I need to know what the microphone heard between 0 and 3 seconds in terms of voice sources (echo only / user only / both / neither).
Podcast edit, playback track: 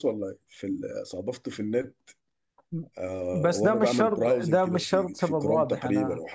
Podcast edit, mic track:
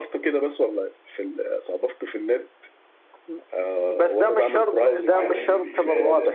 echo only